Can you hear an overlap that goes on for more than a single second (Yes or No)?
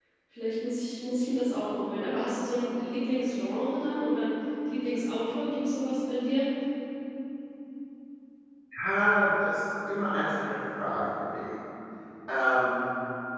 No